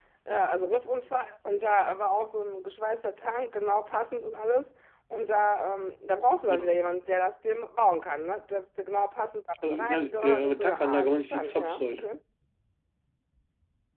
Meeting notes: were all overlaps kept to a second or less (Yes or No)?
No